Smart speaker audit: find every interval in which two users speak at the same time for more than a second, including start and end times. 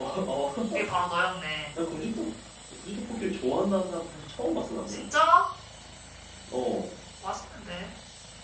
none

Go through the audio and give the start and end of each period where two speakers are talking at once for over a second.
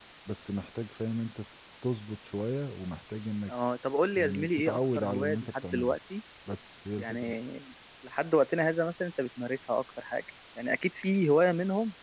4.2-6.0

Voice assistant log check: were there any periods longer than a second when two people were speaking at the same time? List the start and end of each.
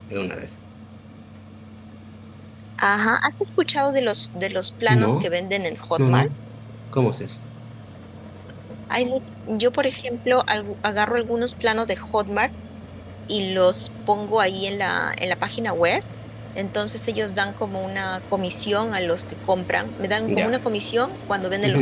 none

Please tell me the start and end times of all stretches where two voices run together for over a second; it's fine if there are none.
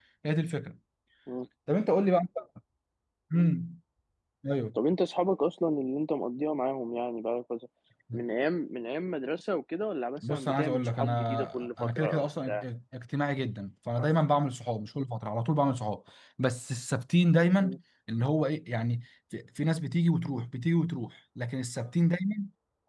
10.3-12.6

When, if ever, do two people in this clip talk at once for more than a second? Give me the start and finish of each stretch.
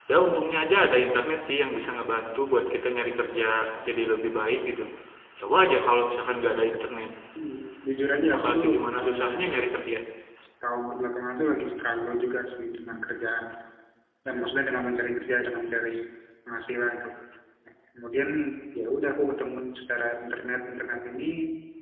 8.3-9.6

